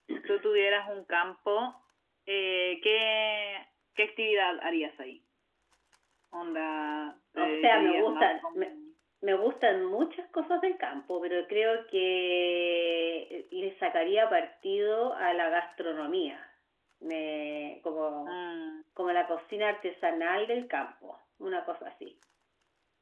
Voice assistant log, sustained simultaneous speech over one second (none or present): present